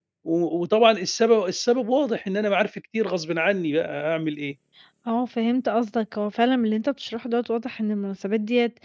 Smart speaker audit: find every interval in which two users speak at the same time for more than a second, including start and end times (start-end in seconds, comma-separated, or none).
none